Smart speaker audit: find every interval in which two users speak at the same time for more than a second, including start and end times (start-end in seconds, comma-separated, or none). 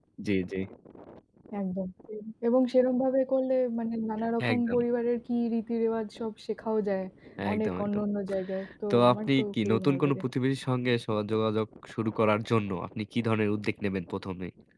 8.9-10.2